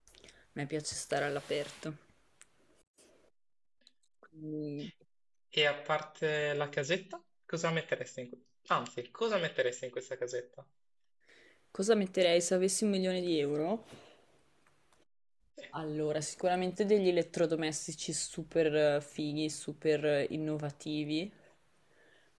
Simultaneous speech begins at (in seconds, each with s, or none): none